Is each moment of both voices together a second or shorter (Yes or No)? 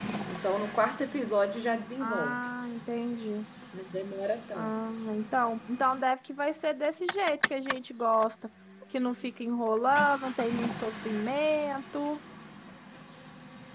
Yes